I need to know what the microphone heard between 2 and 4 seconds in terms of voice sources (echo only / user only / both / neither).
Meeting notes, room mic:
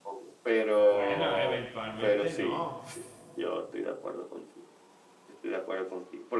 both